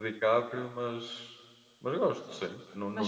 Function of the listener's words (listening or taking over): listening